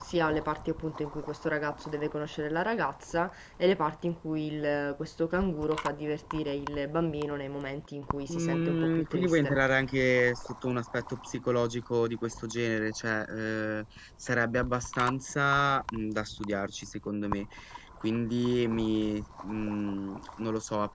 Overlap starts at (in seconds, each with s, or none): 8.3 s